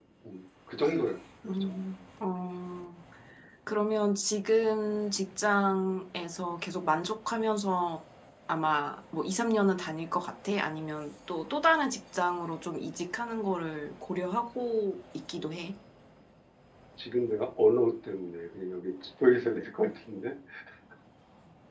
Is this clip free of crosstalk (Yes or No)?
Yes